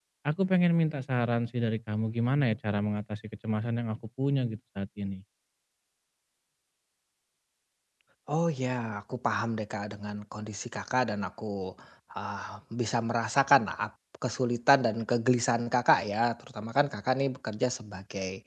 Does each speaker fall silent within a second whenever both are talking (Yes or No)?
Yes